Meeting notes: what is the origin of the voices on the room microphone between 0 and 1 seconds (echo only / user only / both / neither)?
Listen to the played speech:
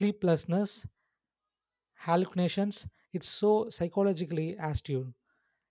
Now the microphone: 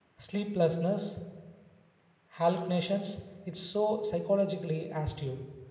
echo only